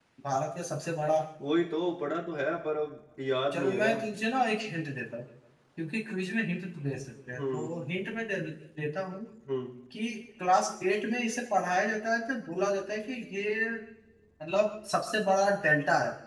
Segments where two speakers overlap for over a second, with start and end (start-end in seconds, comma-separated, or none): none